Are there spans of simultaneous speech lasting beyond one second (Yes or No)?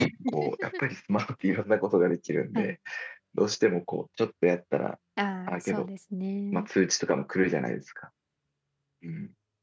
No